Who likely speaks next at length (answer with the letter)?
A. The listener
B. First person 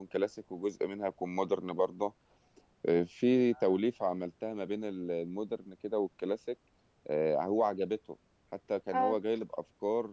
B